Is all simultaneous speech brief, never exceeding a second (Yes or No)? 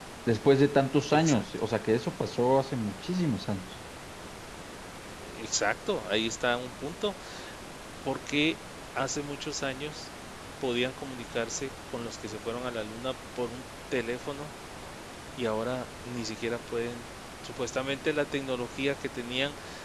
Yes